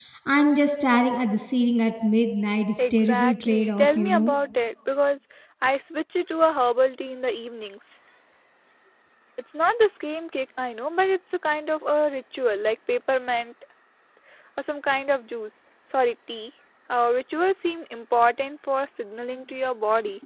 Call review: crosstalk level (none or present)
present